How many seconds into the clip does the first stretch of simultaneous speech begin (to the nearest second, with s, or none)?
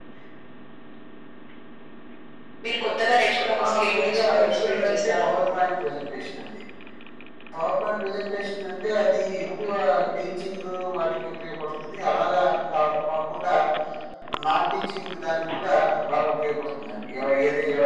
4 s